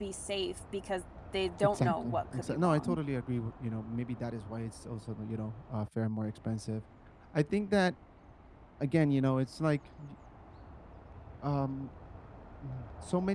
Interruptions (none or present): present